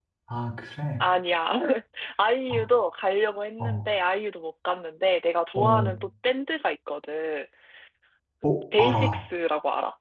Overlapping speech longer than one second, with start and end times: none

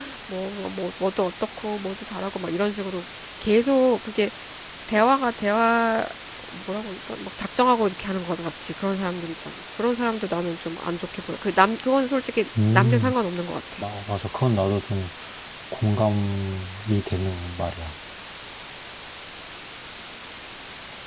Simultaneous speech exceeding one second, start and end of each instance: none

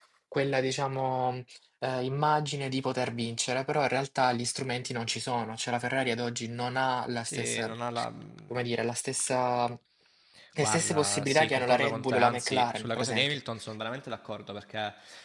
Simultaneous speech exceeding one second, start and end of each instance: 10.6-13.4

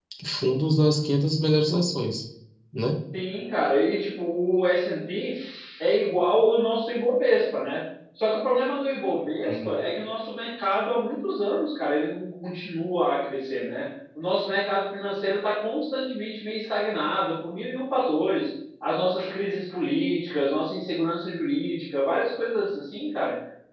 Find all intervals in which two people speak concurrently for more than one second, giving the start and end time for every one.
none

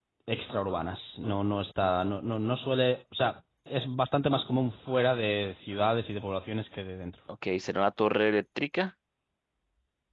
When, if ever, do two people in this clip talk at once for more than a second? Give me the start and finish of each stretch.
none

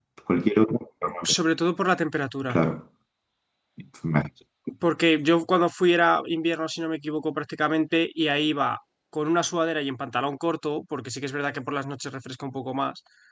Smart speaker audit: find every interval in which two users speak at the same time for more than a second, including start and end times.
none

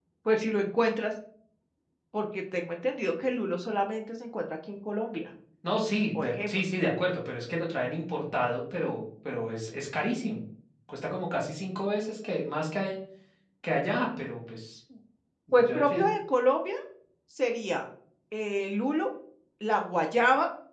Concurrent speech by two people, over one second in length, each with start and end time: none

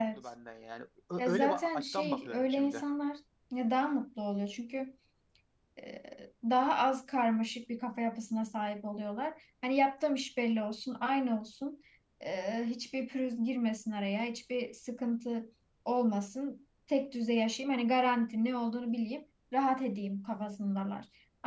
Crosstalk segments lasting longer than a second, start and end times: 1.2-2.8

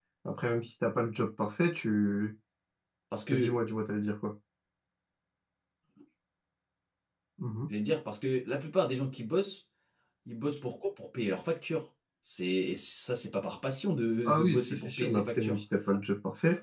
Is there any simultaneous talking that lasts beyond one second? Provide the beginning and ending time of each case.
14.2-15.6

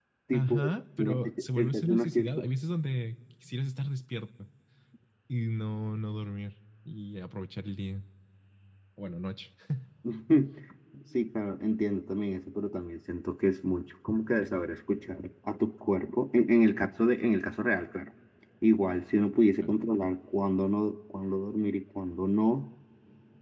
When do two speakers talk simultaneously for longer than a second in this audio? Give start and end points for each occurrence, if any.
1.0-2.4

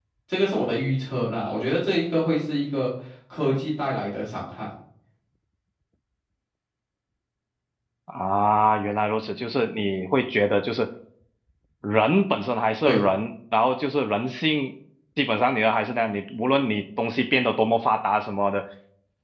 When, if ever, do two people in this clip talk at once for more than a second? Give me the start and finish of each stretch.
none

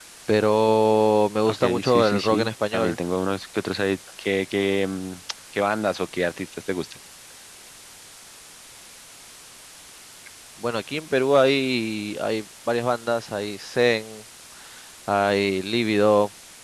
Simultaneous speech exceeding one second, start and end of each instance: 1.5-3.0

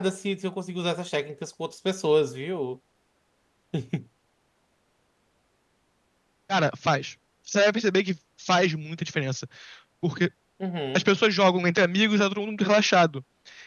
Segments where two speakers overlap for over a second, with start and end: none

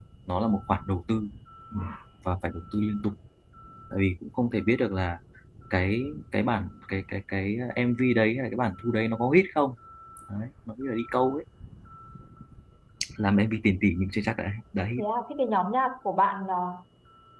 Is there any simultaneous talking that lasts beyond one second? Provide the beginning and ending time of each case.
none

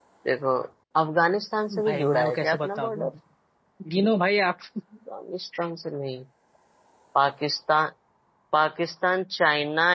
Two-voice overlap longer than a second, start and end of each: 1.9-3.1

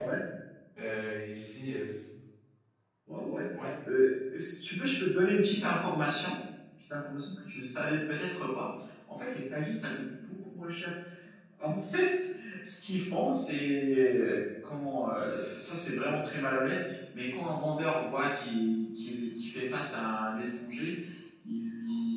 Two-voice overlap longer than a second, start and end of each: none

